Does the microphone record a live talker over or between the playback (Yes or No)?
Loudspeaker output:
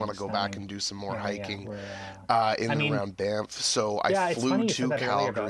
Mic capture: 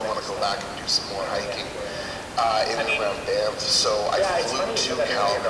No